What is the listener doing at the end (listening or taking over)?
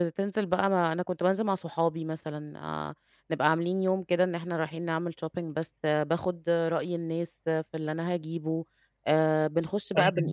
listening